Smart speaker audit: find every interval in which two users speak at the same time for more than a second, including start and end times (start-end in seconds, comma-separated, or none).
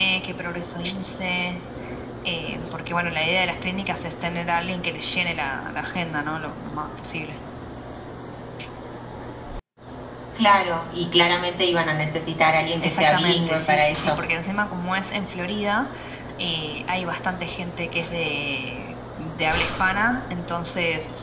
12.8-14.2